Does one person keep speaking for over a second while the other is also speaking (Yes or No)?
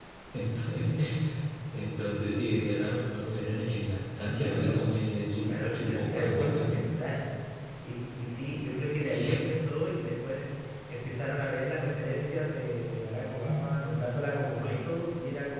Yes